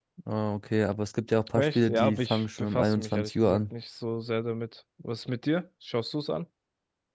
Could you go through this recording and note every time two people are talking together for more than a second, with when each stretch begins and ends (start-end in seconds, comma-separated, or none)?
1.5-3.6